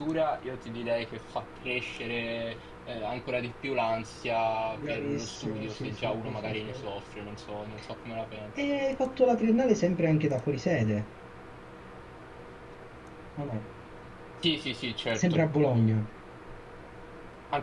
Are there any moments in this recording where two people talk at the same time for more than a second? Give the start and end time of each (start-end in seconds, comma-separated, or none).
4.8-6.8